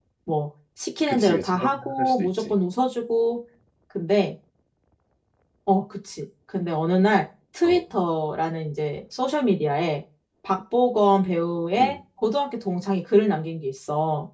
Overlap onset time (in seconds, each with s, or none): 1.1 s